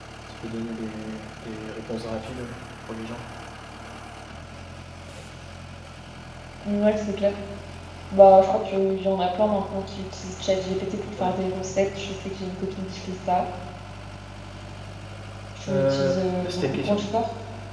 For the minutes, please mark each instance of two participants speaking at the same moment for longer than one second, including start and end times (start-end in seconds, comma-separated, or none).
15.7-17.0